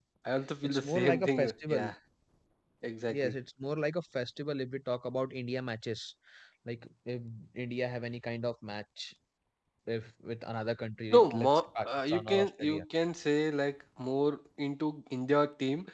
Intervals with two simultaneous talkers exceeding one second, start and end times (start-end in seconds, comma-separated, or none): 0.6-1.9, 11.1-12.8